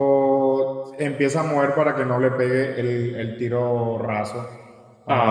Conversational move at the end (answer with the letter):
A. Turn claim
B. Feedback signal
A